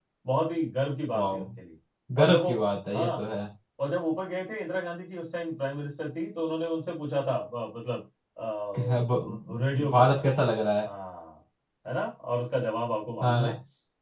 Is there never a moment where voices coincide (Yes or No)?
No